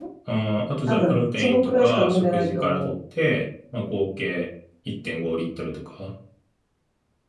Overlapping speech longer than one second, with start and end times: 0.9-2.9

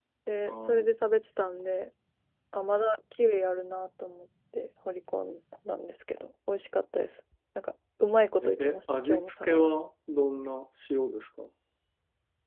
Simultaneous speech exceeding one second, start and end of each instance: 8.4-9.7

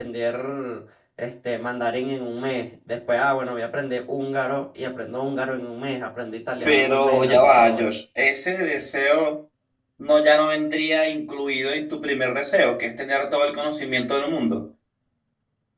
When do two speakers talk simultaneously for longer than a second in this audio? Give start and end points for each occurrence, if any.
6.6-7.9

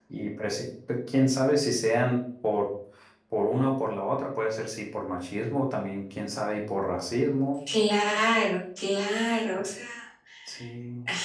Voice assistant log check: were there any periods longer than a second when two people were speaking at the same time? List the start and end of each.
none

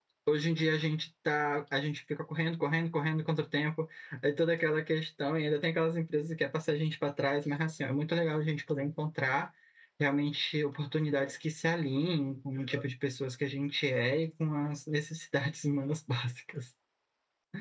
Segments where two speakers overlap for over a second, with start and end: none

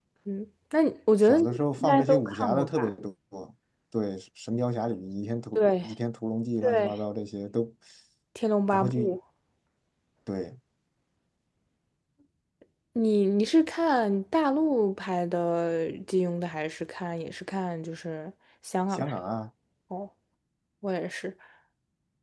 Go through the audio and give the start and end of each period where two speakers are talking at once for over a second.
1.3-2.9

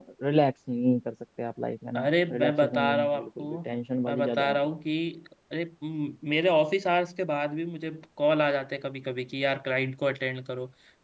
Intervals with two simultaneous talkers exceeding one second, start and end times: 2.0-3.6

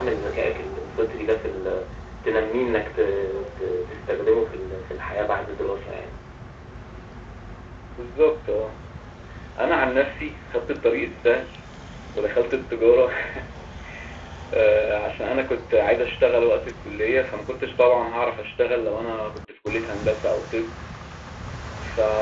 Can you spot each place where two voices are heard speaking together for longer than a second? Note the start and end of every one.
none

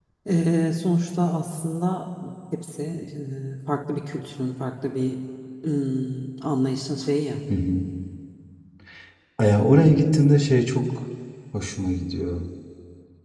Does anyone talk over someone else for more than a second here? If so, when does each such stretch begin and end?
none

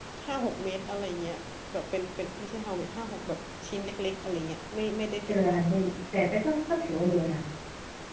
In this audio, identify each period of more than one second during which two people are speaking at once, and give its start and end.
none

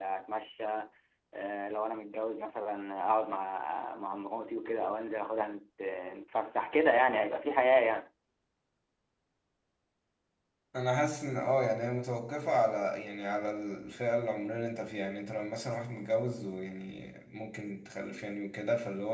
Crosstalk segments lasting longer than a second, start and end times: none

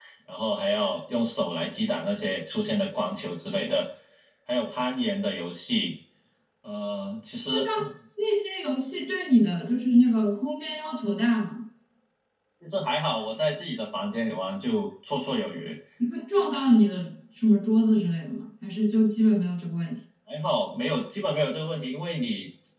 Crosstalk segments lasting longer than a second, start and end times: none

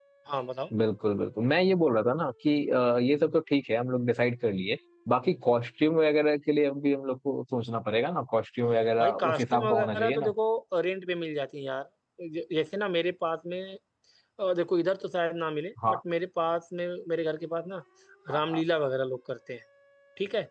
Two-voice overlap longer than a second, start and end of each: 9.0-10.3

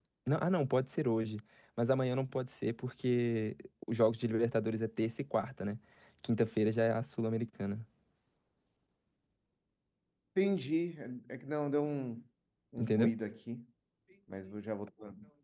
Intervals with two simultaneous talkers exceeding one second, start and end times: none

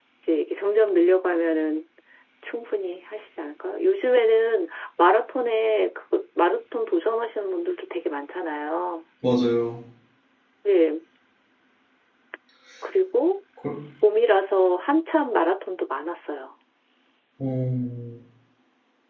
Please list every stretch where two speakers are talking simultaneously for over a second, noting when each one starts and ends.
none

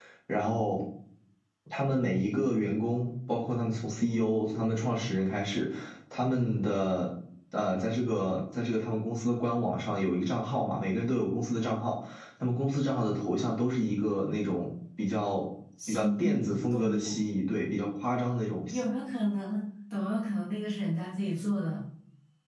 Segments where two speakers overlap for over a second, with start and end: 15.9-17.2

